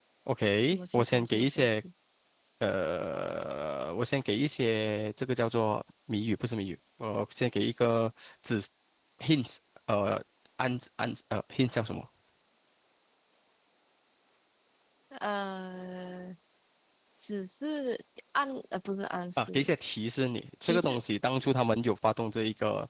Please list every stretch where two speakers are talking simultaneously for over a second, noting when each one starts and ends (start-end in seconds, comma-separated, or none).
0.6-1.8